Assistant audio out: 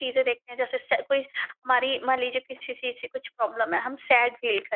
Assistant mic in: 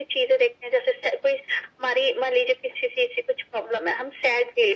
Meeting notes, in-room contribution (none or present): none